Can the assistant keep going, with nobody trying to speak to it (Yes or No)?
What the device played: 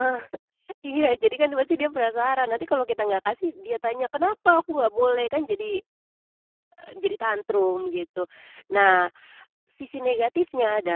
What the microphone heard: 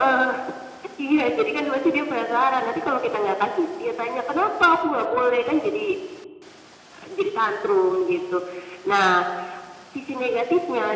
Yes